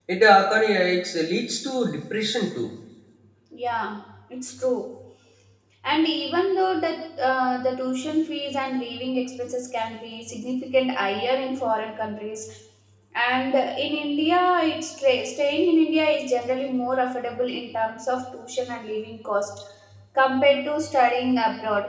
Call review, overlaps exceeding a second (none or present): none